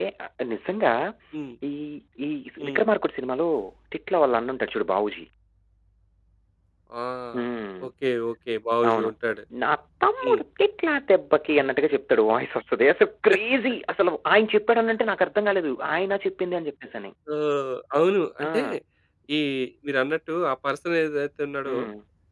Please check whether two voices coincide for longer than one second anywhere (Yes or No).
No